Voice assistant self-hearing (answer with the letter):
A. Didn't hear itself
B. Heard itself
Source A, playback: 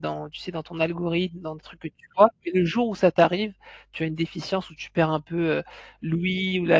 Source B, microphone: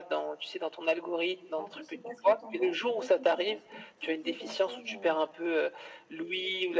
B